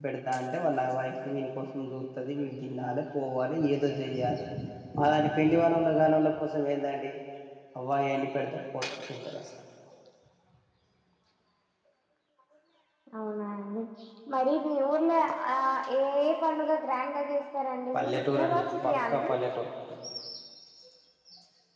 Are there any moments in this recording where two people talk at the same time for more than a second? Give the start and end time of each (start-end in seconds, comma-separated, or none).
17.9-19.3